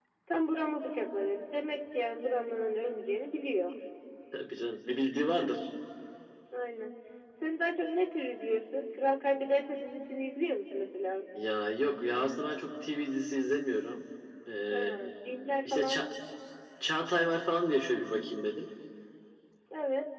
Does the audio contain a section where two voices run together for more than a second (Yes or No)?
No